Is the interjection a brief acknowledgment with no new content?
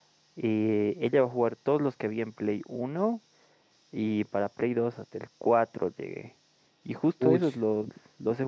Yes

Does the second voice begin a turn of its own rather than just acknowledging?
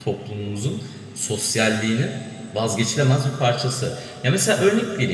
No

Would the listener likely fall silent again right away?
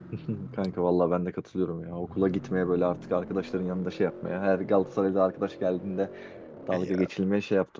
Yes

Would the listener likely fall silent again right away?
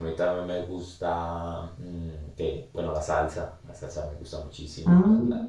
Yes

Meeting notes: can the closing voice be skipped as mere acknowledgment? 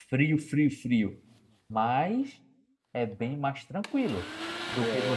No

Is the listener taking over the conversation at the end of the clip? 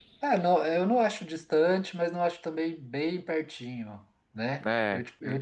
No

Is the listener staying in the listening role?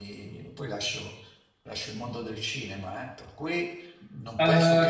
No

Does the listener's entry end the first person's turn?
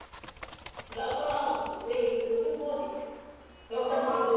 No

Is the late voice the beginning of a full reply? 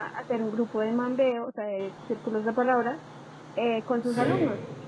No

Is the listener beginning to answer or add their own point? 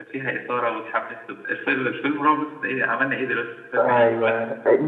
Yes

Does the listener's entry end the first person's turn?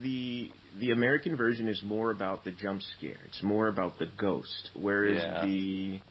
No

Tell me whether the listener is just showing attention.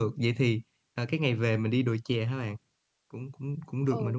No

